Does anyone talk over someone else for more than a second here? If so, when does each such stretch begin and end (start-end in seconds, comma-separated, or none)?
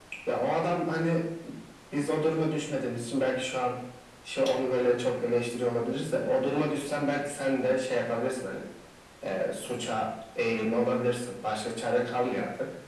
none